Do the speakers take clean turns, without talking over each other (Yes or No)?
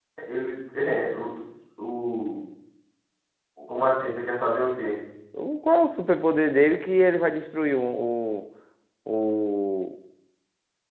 Yes